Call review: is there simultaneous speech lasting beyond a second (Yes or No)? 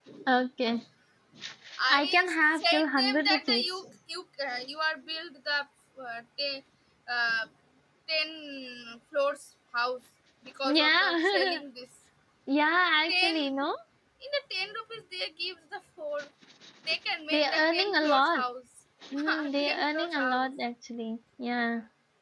Yes